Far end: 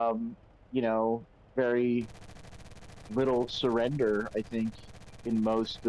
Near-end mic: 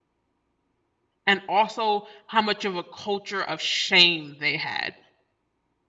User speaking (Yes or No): Yes